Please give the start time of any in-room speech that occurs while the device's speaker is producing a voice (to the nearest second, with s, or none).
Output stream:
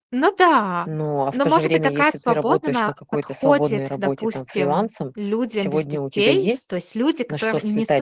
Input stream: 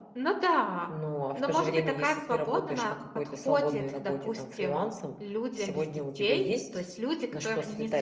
none